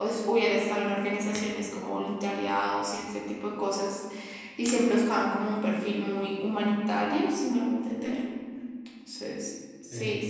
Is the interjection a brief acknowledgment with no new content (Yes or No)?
Yes